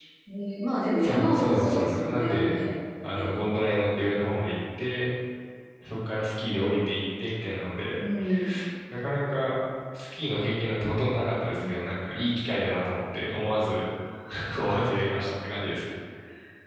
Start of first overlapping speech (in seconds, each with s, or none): 1.0 s